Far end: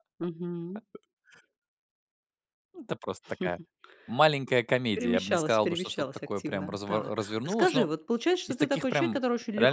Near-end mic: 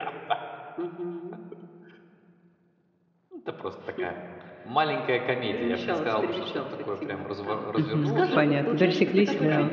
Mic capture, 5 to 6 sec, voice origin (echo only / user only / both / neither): echo only